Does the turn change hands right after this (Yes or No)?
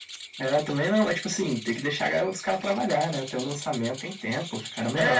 Yes